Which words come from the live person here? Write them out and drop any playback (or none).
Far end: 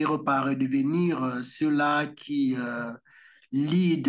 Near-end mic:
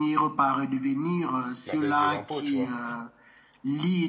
la baisse des impôts, tu vois.